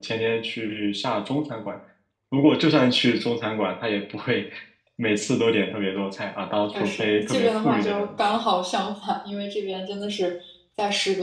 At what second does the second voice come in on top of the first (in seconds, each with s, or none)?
6.7 s